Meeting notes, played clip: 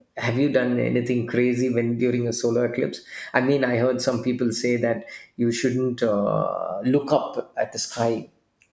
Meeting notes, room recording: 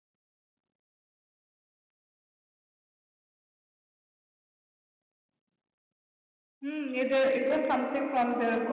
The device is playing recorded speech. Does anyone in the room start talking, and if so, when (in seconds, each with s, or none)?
6.6 s